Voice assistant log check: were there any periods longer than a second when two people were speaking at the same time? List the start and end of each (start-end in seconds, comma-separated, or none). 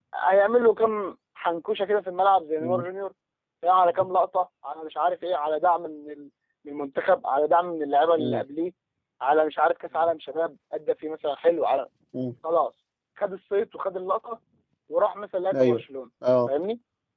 none